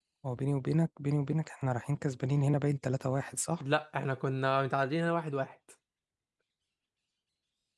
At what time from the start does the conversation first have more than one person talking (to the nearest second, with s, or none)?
none